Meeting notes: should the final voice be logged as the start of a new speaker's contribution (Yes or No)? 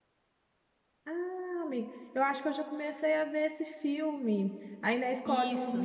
No